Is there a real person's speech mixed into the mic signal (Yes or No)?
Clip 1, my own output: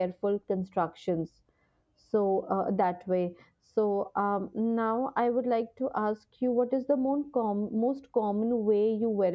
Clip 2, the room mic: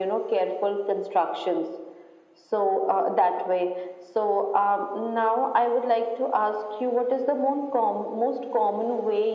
No